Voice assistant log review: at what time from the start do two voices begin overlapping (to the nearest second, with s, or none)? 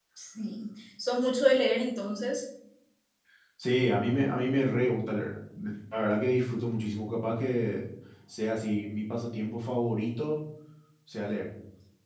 none